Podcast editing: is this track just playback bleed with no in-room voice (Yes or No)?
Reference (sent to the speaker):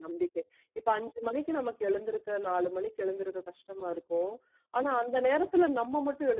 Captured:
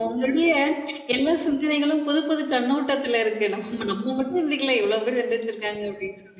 No